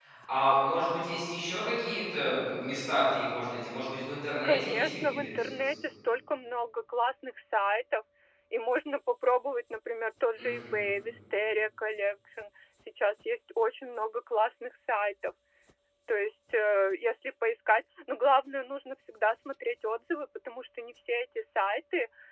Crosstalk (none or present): present